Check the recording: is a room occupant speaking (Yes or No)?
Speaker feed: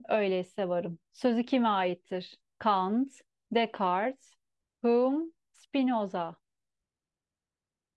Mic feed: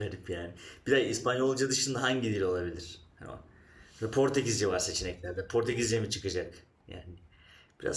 Yes